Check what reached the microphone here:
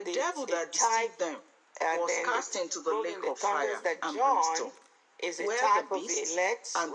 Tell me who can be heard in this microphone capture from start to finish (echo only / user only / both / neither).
echo only